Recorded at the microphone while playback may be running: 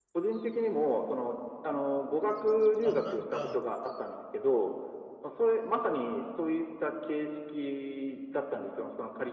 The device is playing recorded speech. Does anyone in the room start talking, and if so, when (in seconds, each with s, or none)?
2.8 s